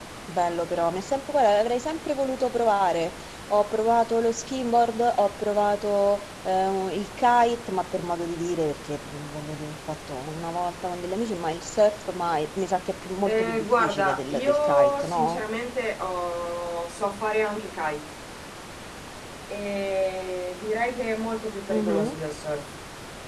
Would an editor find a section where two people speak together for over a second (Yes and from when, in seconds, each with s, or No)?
Yes, from 13.2 s